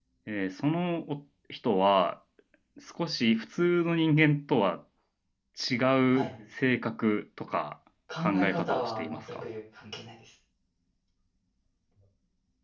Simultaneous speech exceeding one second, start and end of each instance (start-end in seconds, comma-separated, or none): 8.2-9.4